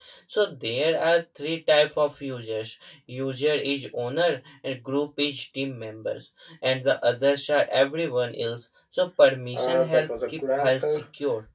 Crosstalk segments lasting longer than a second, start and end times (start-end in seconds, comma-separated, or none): 9.5-11.0